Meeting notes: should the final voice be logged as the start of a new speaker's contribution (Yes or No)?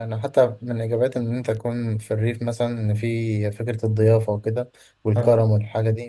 No